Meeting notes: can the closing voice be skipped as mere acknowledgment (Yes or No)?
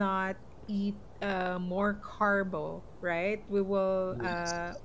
Yes